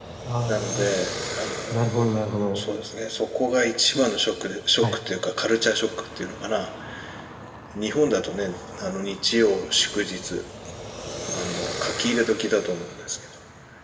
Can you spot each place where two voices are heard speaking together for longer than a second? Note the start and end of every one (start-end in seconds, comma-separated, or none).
none